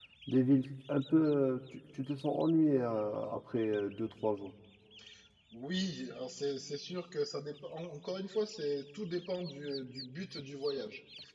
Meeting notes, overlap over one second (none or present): none